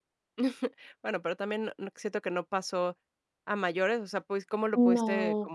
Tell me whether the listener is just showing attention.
Yes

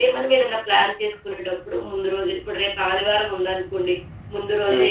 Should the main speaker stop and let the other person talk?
No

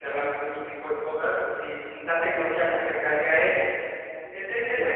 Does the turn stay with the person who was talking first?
Yes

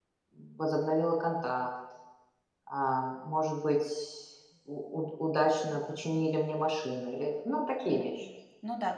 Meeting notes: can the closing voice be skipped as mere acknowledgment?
No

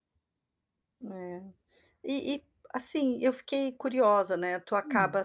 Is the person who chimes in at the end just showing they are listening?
Yes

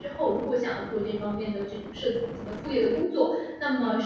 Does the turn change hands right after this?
No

